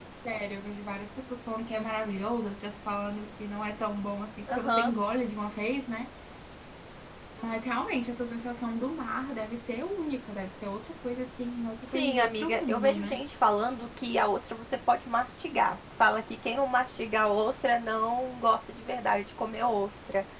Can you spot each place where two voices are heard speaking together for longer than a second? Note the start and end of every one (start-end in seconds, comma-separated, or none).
11.9-13.2